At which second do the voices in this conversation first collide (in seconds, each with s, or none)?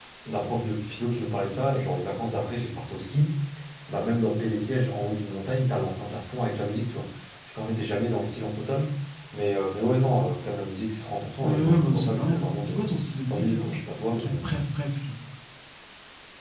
11.4 s